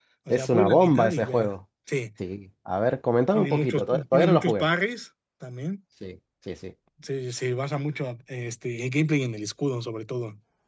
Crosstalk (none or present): present